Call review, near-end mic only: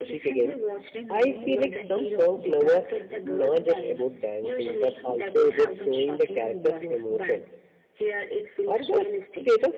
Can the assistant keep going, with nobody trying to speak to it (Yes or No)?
No